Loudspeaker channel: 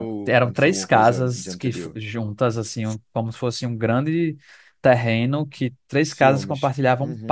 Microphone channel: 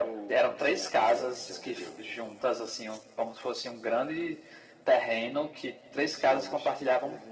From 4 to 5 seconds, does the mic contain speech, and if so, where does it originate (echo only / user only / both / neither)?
echo only